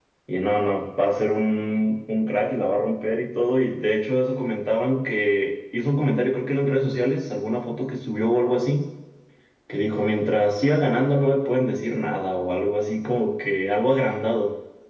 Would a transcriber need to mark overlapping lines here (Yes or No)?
No